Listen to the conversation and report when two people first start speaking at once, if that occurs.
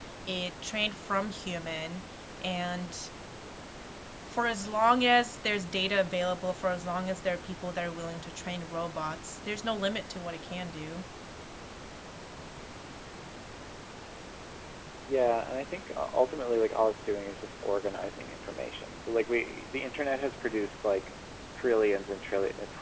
none

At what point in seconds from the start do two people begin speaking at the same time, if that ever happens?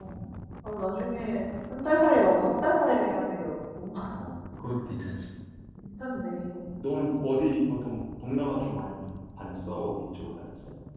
none

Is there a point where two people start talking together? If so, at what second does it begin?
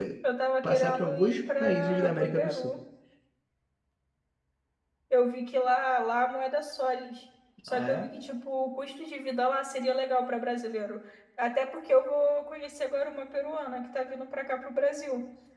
0.6 s

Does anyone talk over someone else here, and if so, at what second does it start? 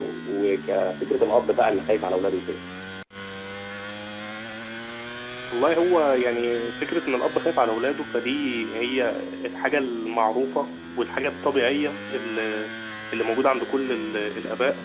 none

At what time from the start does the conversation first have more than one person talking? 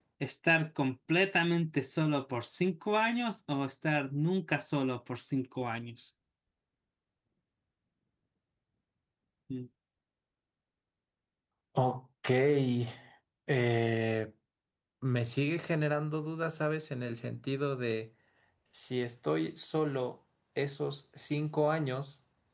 none

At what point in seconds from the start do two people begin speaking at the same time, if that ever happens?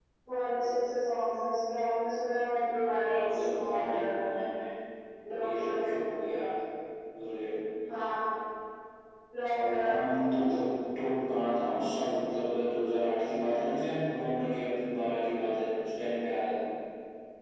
3.1 s

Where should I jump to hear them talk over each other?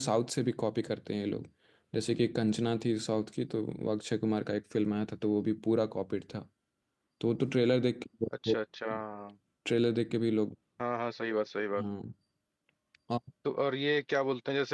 none

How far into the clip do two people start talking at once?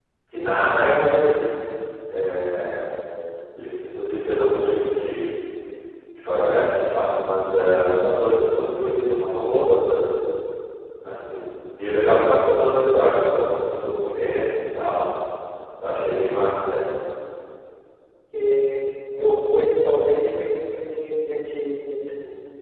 none

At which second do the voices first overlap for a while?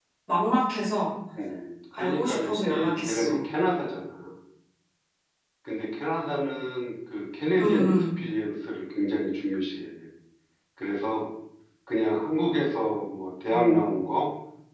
1.9 s

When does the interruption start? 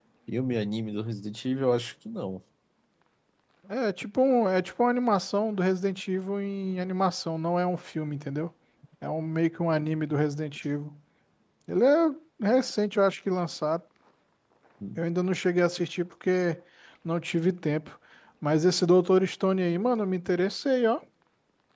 none

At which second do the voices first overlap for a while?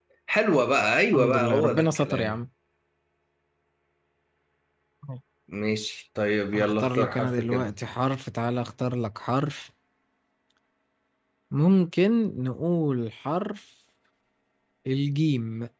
1.1 s

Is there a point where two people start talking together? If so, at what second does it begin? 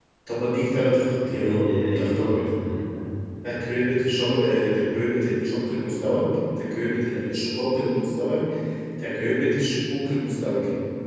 1.3 s

